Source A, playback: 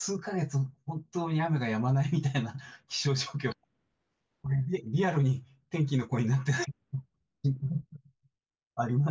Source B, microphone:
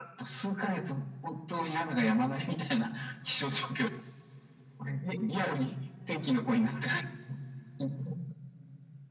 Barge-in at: none

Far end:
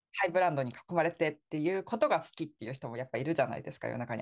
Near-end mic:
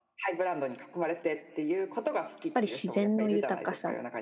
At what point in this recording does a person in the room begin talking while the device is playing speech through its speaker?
2.5 s

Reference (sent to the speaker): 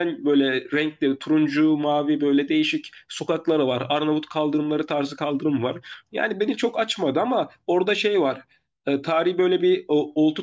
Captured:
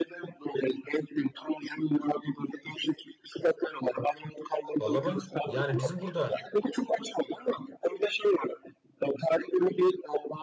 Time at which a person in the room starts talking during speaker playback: 4.8 s

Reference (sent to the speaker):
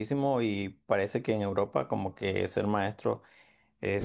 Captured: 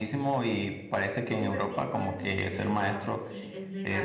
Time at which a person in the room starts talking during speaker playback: 1.2 s

